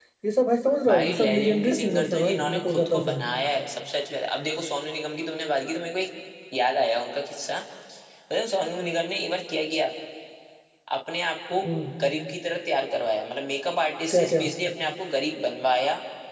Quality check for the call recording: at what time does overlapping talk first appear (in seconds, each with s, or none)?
0.9 s